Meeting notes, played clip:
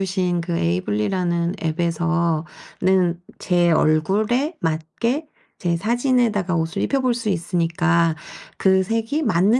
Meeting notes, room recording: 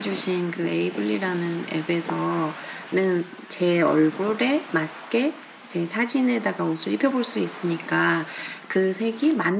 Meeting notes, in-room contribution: none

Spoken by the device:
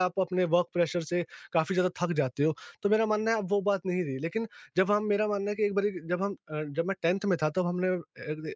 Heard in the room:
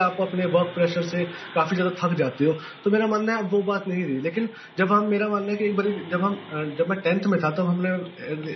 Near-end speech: none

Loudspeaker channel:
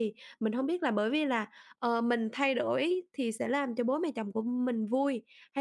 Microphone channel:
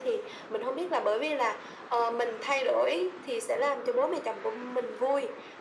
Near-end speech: none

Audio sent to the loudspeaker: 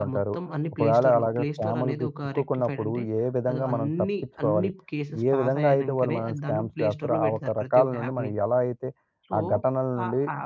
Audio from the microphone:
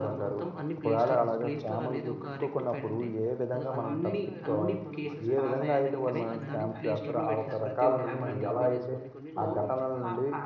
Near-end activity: present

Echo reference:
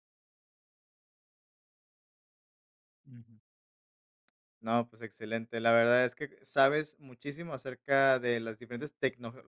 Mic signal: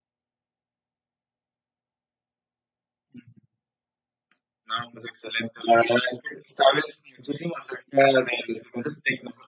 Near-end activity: none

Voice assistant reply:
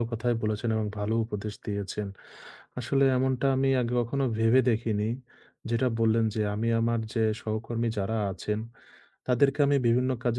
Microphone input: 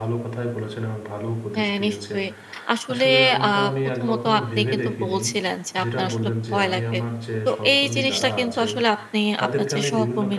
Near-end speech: present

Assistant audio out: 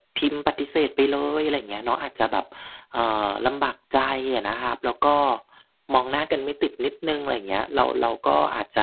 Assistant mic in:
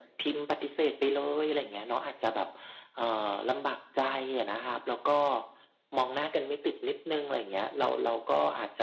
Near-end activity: none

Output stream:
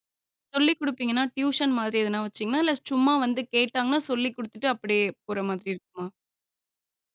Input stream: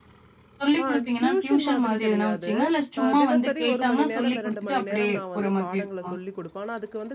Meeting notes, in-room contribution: present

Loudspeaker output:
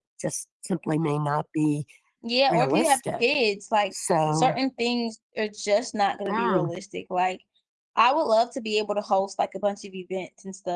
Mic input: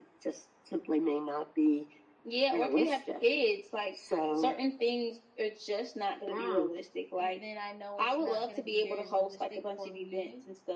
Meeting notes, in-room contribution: present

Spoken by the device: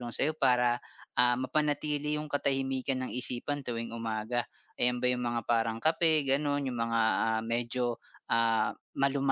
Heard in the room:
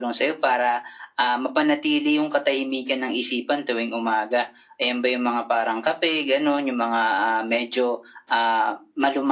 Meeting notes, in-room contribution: none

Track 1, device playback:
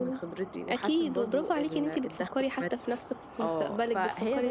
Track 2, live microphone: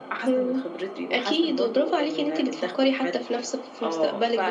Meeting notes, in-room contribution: none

